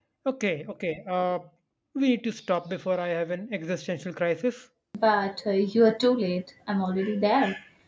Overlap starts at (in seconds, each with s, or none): none